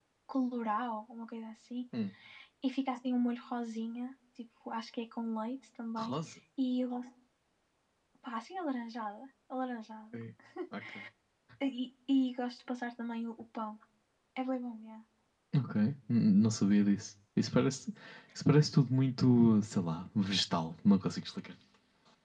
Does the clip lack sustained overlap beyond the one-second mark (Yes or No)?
Yes